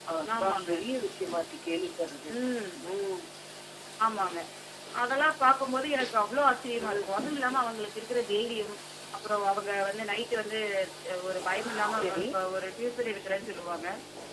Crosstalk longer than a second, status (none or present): none